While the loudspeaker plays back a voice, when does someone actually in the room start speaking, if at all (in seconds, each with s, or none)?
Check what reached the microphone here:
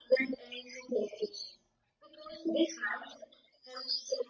none